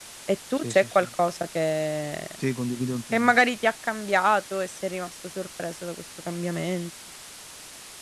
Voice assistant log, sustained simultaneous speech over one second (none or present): none